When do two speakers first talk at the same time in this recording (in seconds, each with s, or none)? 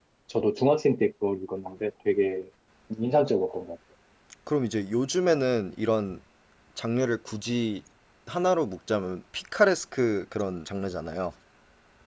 none